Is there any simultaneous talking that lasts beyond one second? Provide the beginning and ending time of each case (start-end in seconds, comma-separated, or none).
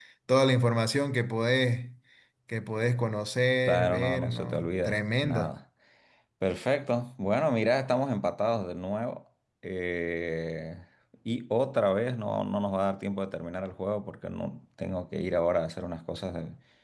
3.6-5.5